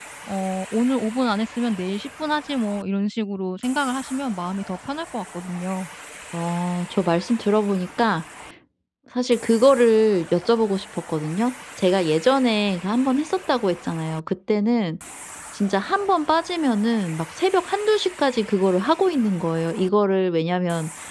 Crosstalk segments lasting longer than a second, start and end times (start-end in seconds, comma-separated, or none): none